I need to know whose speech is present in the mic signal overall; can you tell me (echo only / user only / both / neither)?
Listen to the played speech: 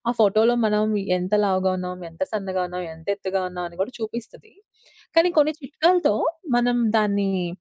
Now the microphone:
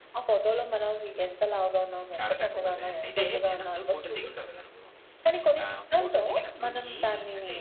both